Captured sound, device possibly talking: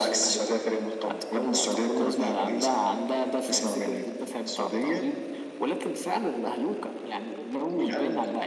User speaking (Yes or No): No